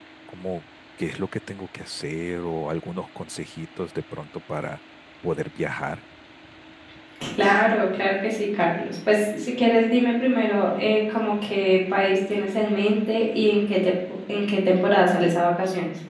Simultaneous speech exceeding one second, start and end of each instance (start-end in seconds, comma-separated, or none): none